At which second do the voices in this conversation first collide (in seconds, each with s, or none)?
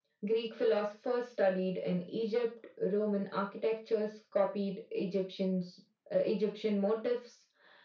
none